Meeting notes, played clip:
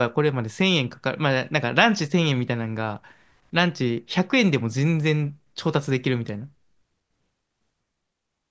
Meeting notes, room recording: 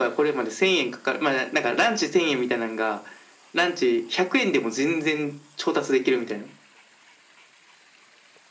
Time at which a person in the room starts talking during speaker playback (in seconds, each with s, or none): none